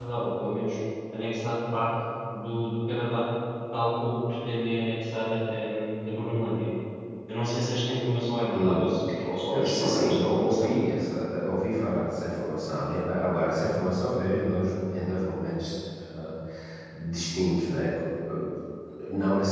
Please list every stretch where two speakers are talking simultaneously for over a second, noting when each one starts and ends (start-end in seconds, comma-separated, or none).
9.5-10.8